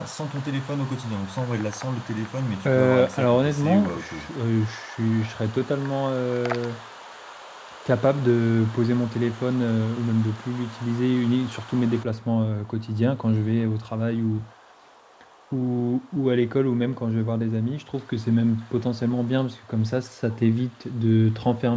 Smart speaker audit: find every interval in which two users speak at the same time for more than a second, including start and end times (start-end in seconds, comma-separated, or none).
2.6-4.3